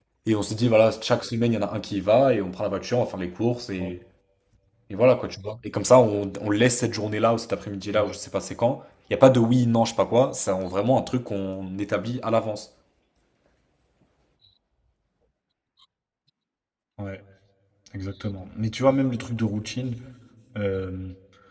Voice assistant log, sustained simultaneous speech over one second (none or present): none